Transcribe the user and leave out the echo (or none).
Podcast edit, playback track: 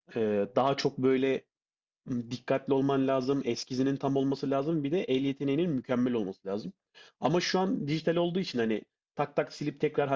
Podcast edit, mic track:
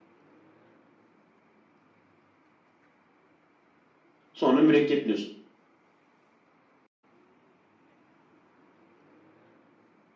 Sonra mürekkepliyorsun.